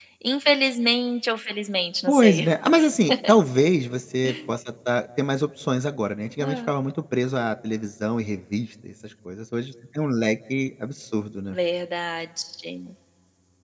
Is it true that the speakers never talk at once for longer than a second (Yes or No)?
Yes